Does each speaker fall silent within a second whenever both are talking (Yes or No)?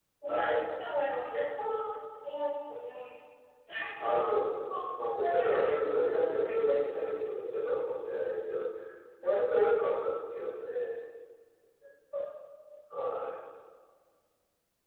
No